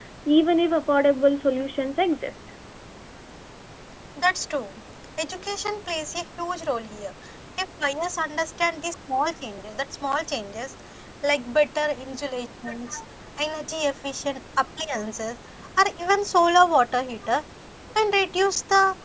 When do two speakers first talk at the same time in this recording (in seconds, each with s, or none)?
none